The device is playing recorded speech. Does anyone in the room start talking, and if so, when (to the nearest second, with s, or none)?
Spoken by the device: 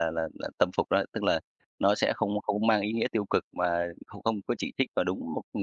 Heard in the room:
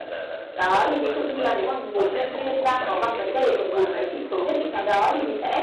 1 s